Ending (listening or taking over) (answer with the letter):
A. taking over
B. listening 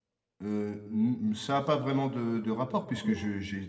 B